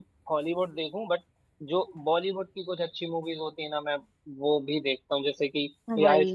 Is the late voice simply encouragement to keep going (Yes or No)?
Yes